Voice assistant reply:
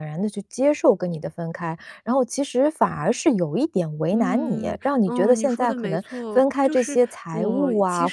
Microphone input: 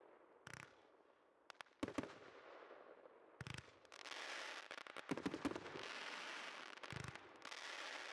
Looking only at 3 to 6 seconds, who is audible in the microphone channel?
neither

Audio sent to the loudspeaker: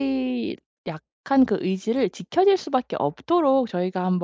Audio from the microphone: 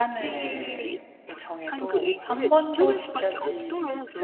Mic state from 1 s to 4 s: both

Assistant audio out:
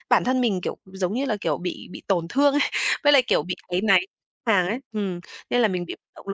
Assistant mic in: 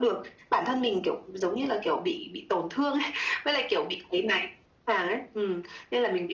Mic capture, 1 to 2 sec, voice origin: echo only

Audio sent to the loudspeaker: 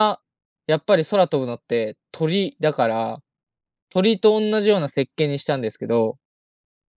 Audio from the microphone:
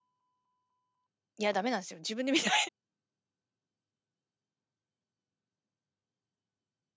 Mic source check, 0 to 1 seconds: neither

